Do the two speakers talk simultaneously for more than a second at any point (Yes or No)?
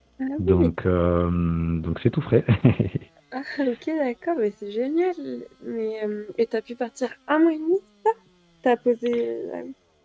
No